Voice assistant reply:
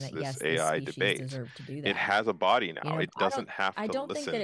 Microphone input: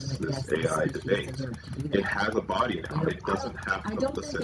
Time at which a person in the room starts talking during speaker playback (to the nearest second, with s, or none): none